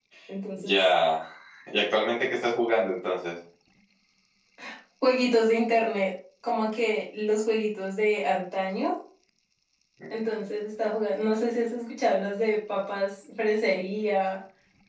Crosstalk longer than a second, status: none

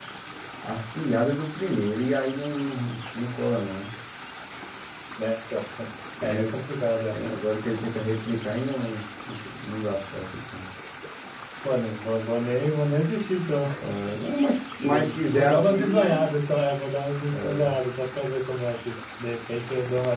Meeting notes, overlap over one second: present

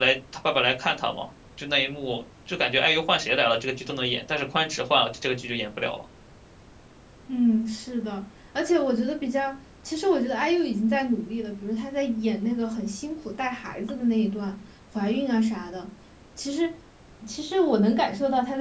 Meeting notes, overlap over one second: none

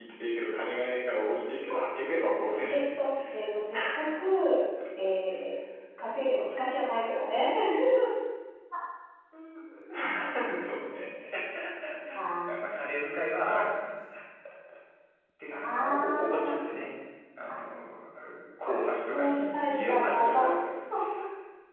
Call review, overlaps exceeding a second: present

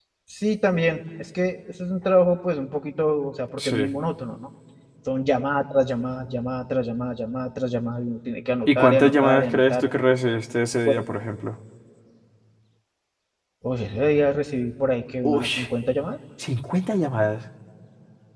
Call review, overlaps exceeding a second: present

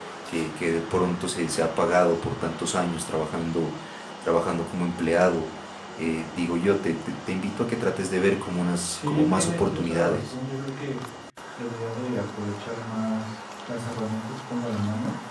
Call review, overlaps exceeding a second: present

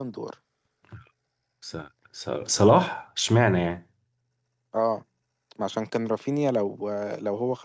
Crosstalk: none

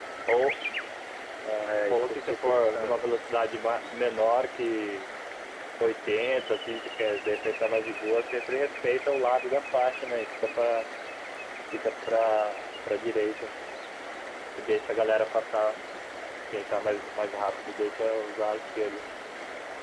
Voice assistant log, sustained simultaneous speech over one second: present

